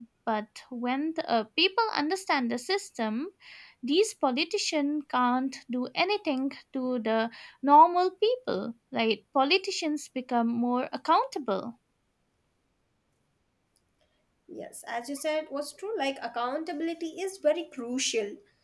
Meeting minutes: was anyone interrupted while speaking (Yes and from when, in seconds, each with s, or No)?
No